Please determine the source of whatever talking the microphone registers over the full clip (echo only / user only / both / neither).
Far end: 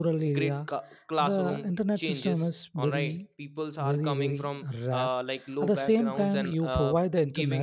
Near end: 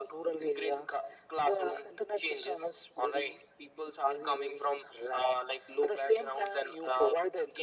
echo only